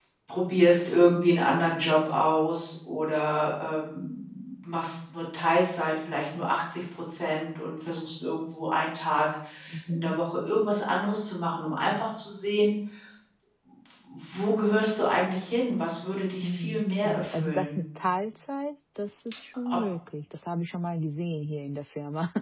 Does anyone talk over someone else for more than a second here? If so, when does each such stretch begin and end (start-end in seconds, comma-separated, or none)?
16.4-17.8